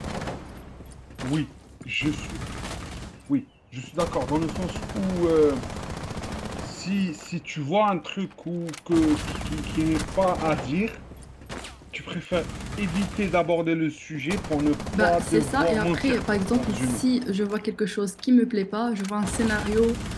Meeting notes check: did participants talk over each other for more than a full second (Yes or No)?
Yes